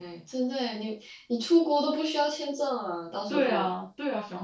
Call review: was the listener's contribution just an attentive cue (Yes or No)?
No